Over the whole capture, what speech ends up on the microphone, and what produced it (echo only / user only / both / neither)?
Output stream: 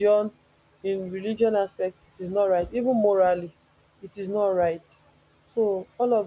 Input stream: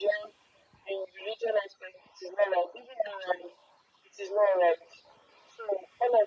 echo only